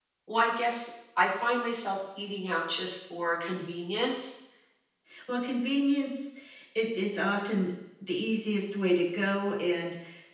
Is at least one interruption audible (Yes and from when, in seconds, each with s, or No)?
No